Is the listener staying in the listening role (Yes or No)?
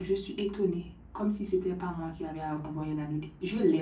No